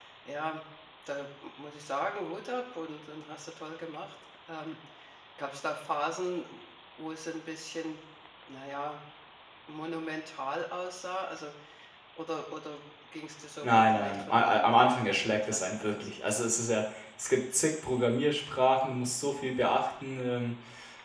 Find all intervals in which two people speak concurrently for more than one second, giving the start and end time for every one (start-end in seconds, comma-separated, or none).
13.6-16.1